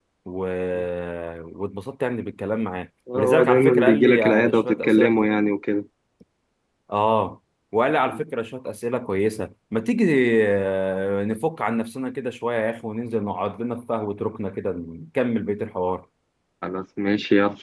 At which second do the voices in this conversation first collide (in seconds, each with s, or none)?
3.1 s